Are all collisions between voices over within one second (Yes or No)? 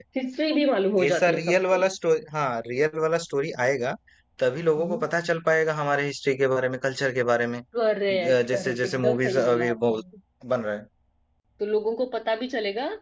No